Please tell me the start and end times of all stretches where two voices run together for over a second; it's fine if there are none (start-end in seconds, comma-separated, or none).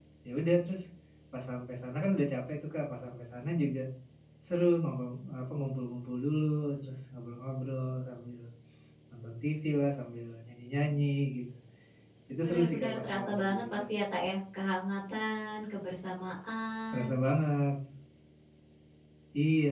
12.4-13.8